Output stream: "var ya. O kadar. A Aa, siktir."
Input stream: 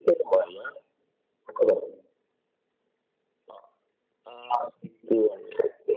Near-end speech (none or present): none